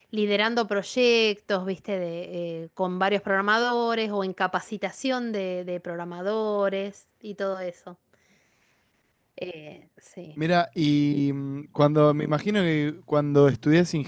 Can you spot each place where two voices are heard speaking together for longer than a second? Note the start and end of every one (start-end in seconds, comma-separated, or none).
none